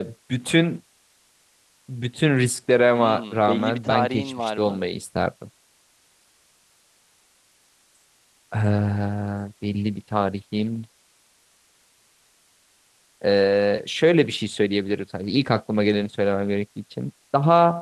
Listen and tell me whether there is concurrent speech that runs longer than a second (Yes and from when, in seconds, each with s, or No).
Yes, from 2.9 s